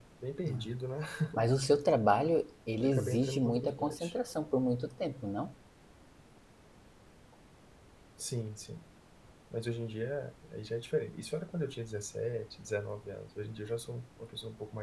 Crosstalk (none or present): present